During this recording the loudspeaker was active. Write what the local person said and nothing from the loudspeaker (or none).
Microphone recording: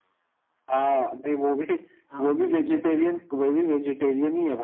हाँ ये भी ऑप्शन है